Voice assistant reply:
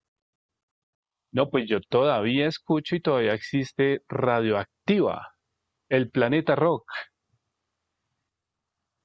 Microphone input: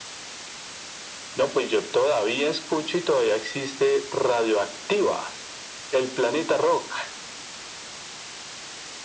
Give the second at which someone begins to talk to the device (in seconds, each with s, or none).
none